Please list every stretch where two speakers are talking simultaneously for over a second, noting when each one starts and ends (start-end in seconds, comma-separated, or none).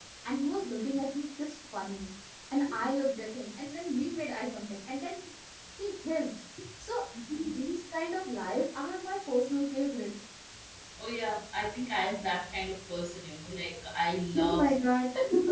none